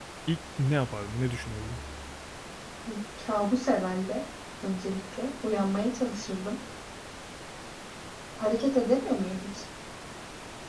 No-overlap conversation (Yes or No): Yes